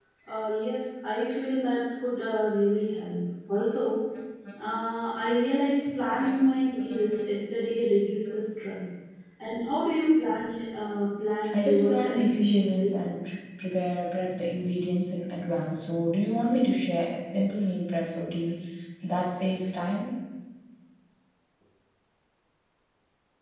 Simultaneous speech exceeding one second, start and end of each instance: 11.5-12.9

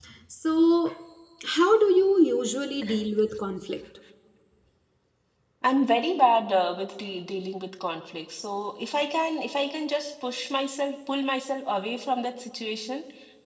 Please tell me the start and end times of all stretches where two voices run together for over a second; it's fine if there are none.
none

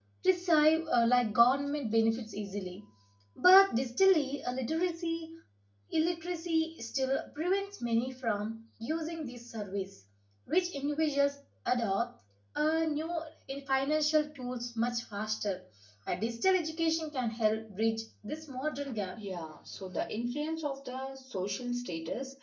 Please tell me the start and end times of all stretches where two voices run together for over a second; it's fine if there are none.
none

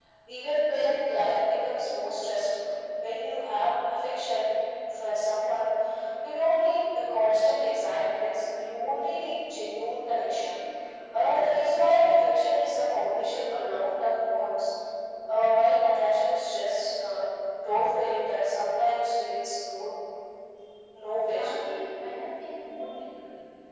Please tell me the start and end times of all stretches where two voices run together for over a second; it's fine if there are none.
none

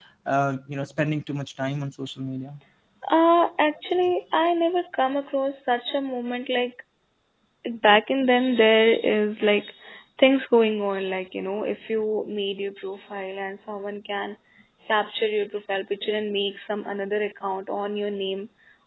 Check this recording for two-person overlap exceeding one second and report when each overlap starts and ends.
none

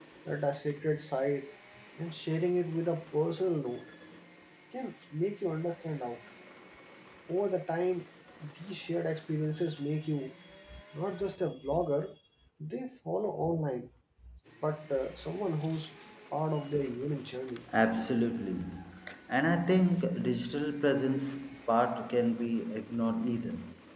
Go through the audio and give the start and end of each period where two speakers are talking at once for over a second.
none

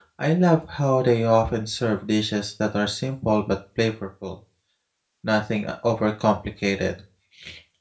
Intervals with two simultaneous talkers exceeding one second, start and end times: none

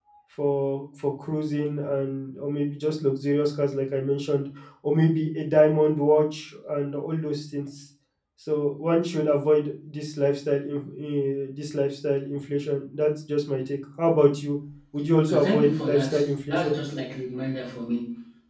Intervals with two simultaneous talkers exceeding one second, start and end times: 15.3-16.7

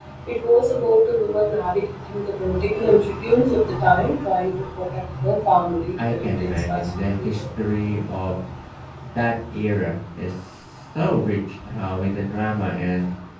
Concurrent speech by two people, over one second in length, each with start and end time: 6.0-7.3

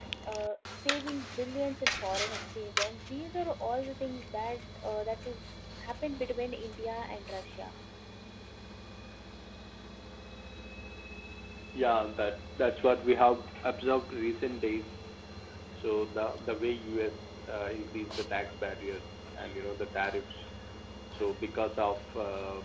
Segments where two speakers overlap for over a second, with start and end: none

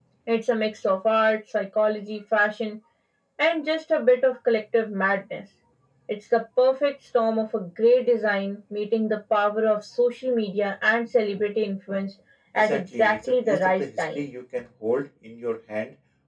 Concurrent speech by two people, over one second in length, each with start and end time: 12.6-14.2

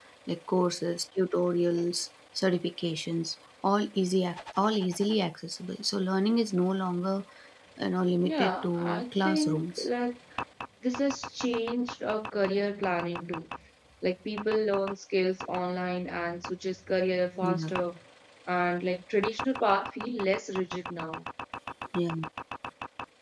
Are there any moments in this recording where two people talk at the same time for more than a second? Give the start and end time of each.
8.2-9.9

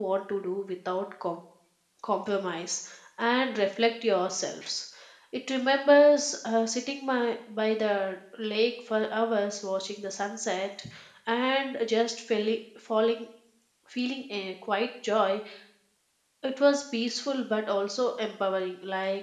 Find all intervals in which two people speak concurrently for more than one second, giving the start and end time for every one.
none

